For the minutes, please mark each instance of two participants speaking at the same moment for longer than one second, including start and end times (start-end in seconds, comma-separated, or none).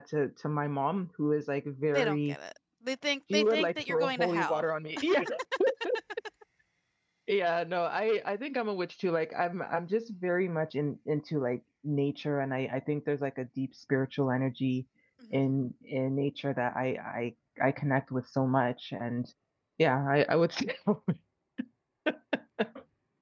3.3-4.6